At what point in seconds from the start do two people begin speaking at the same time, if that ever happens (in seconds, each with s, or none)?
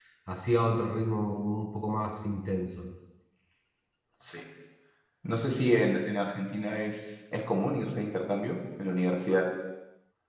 none